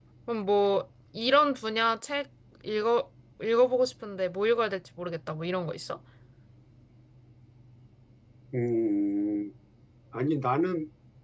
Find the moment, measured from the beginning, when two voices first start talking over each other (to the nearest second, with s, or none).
none